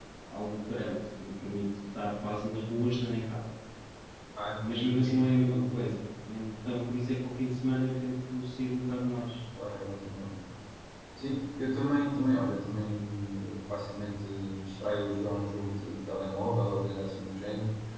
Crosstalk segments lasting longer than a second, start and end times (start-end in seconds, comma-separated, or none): 4.6-5.8